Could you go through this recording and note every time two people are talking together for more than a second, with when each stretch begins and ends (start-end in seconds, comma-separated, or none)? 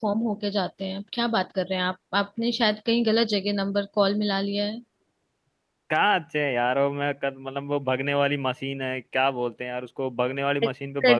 none